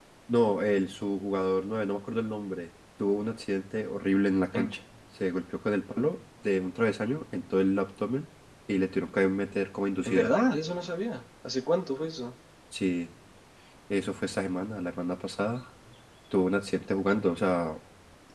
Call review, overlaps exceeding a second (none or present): none